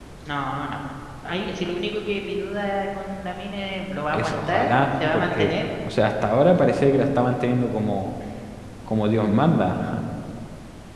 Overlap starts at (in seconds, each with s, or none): 4.1 s